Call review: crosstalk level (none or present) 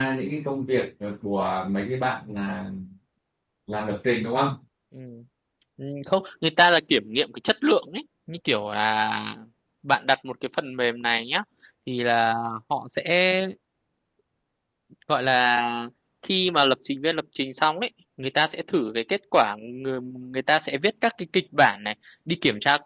none